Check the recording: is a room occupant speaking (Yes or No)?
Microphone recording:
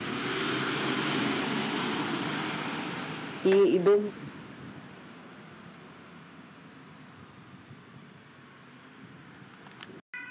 Yes